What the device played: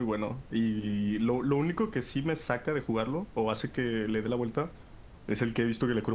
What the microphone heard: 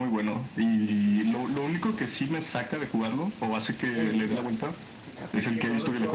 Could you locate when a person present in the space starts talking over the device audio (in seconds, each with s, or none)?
3.9 s